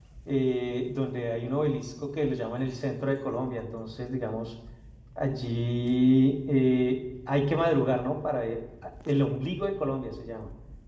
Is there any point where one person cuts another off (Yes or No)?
No